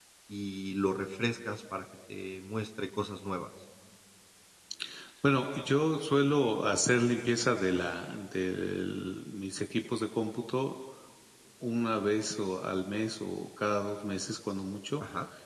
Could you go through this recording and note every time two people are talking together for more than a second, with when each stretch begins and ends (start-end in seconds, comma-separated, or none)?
none